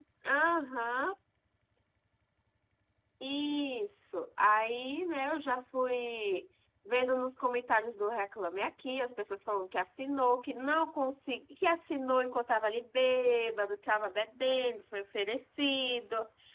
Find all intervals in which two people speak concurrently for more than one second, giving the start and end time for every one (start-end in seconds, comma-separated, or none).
none